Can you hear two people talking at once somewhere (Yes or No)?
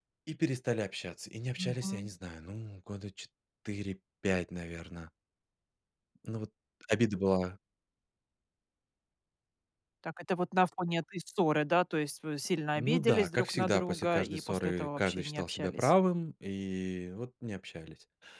Yes